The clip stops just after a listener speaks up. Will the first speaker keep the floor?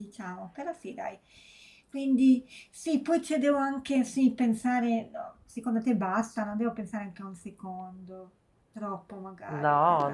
No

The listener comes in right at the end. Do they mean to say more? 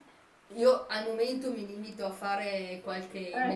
No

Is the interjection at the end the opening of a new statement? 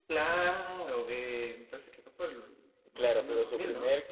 Yes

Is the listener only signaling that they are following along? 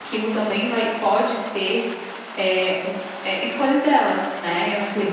No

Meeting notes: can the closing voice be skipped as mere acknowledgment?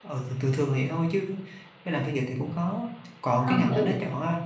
Yes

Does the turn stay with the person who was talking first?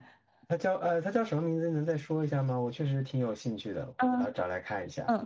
No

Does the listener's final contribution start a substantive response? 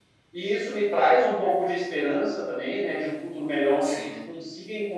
No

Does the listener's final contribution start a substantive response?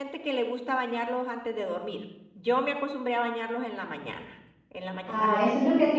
Yes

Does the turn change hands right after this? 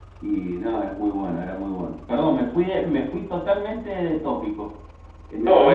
Yes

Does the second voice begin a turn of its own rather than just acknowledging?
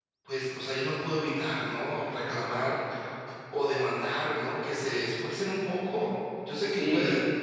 Yes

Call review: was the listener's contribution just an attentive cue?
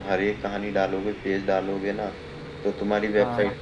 Yes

